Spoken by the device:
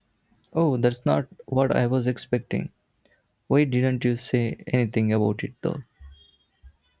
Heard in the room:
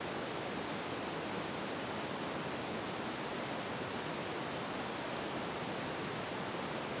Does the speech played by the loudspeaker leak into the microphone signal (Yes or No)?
No